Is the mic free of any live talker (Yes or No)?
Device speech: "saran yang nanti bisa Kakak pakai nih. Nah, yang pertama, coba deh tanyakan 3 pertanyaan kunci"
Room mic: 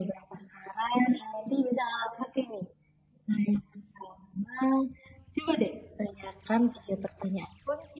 Yes